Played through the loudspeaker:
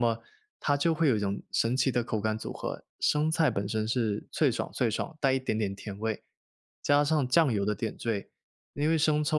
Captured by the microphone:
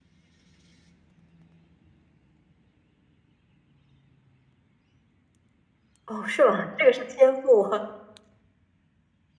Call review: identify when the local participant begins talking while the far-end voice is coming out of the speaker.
6 s

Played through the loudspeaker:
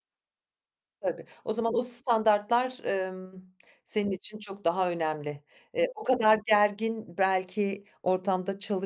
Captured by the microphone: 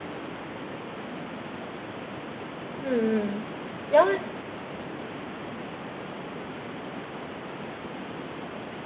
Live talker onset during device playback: 3 s

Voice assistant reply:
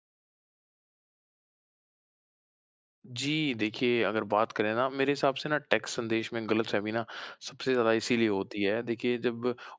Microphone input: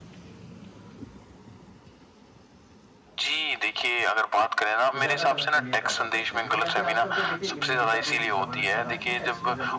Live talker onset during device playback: 5 s

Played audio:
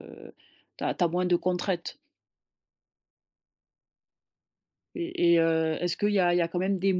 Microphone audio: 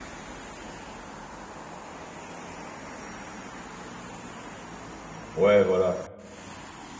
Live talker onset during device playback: 5 s

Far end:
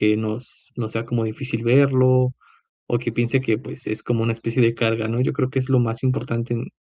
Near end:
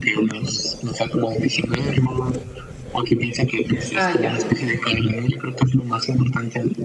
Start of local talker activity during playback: 4 s

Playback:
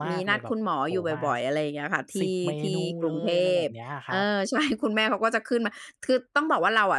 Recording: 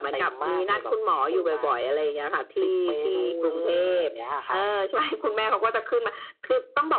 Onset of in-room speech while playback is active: none

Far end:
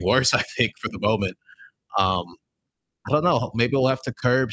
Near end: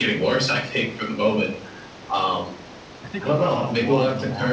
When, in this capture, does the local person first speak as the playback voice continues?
3 s

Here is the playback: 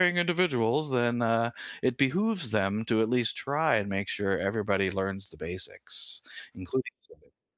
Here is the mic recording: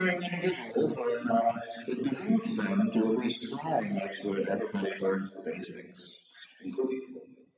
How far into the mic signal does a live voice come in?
none

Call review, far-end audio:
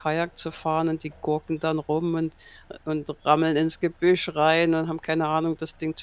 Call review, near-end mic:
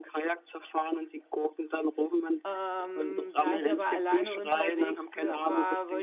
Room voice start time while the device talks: 2 s

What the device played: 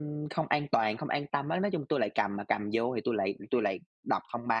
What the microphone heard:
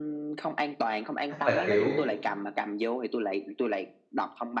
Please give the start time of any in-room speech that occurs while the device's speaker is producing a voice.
1 s

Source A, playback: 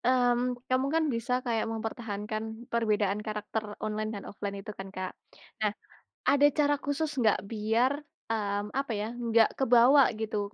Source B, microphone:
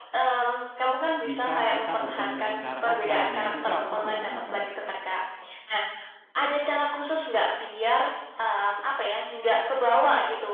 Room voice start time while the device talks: 1 s

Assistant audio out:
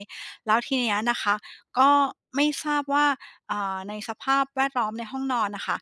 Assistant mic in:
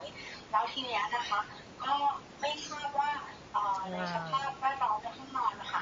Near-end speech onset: 4 s

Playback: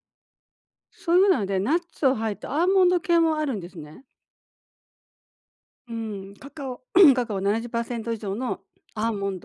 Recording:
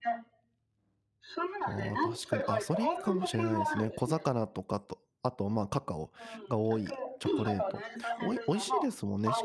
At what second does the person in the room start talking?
2 s

